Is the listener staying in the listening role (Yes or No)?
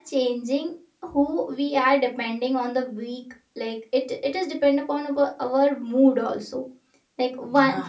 Yes